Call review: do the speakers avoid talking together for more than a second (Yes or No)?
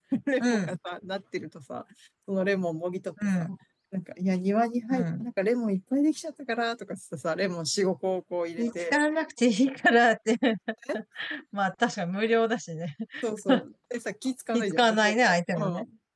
No